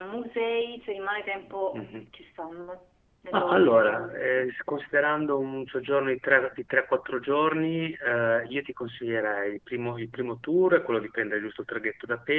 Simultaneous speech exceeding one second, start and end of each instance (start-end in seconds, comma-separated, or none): 3.3-4.5